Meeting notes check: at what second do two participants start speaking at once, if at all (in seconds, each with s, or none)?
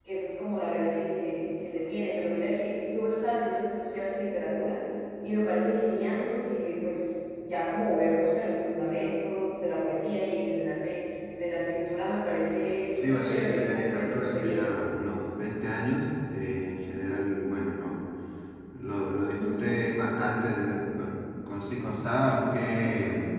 12.9 s